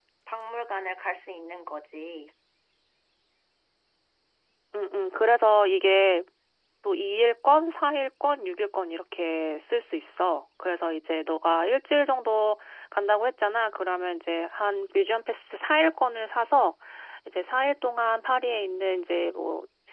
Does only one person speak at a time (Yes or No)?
Yes